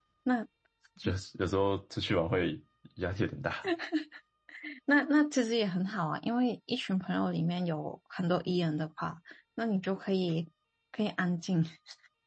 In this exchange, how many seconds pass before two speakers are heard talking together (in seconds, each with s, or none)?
none